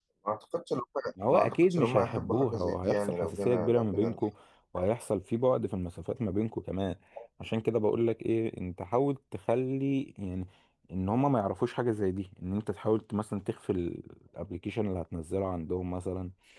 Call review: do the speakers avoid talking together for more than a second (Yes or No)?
No